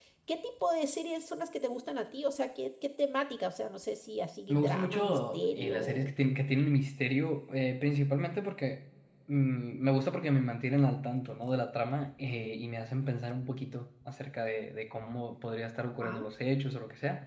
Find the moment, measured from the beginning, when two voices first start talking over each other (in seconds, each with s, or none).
4.5 s